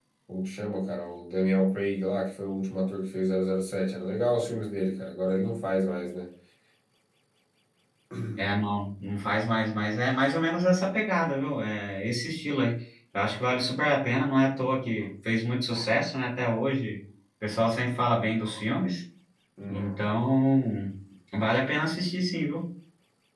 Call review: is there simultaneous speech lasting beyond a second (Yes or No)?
No